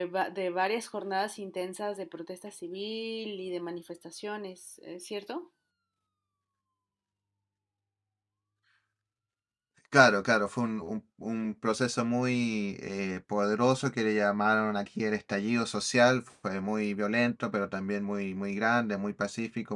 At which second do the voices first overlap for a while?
none

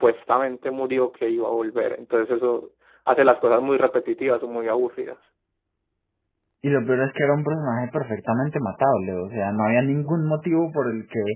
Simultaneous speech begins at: none

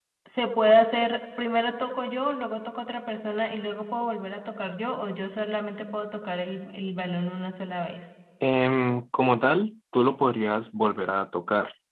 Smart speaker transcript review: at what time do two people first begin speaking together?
none

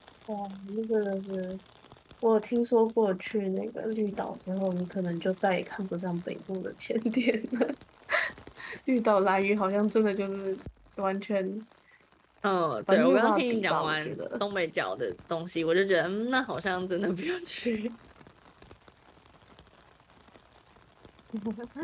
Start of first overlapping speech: 12.9 s

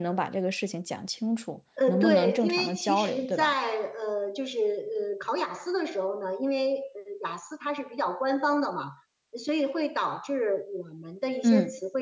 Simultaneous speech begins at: 1.9 s

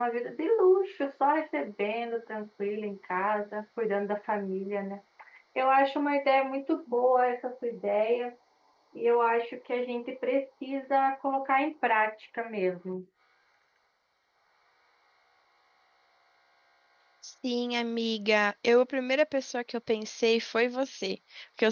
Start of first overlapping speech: none

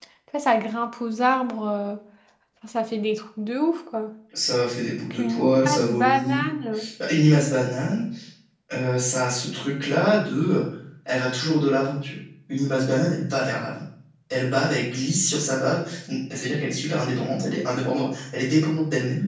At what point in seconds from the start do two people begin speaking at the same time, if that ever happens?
5.1 s

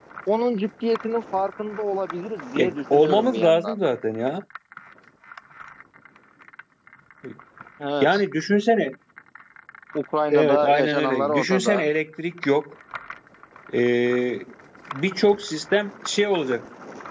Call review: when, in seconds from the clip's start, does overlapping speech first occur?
2.6 s

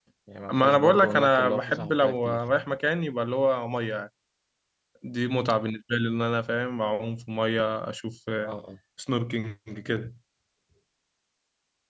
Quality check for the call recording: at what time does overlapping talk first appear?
0.5 s

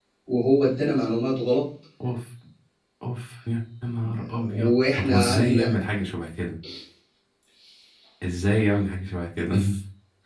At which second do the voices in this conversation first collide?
4.3 s

